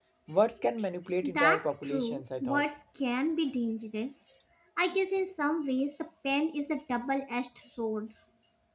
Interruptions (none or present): present